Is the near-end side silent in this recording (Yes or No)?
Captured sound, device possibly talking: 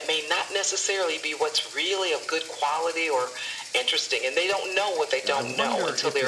No